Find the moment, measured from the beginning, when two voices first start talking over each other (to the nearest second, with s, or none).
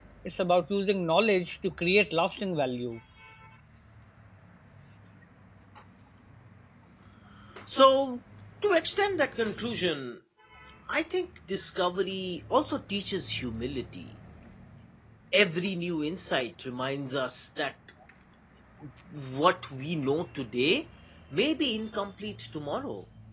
none